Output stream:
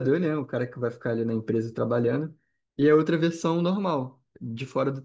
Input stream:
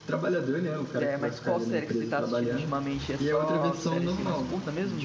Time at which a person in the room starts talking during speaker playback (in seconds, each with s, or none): 1.0 s